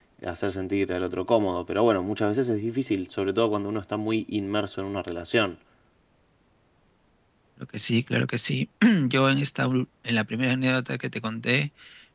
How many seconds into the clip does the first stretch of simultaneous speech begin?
none

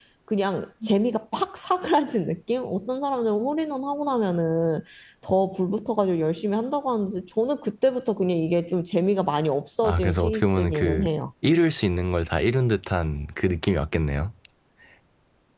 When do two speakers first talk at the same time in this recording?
10 s

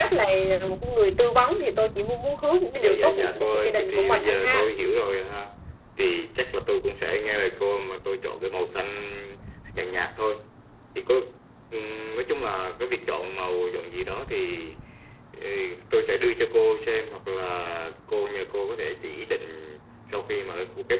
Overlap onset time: 3 s

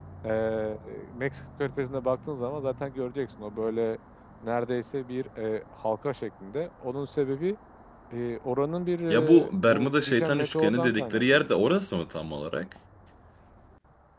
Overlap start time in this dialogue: 9 s

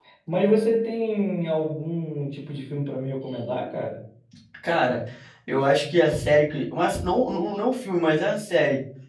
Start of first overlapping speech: none

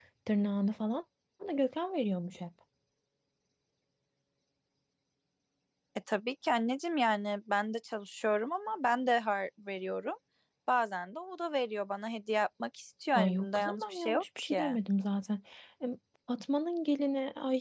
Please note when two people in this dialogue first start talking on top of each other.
13 s

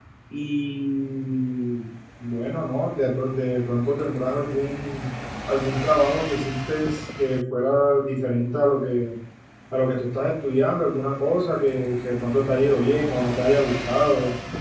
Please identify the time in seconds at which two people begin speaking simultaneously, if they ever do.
none

